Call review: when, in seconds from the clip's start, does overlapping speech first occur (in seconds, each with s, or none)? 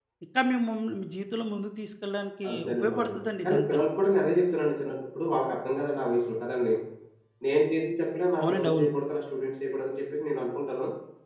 2.5 s